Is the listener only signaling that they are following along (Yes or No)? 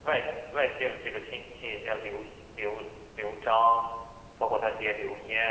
Yes